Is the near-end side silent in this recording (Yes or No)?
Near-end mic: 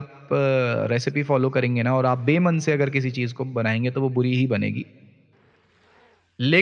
Yes